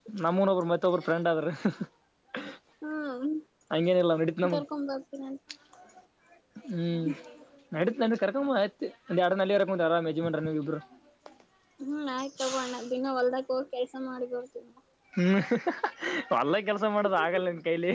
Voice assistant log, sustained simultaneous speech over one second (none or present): none